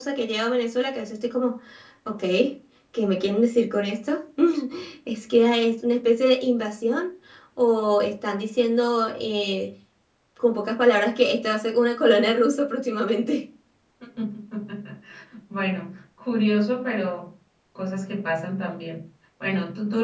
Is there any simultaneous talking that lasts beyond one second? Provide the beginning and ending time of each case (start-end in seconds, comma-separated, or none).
none